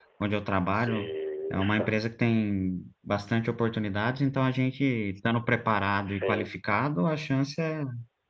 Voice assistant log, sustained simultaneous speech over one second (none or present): none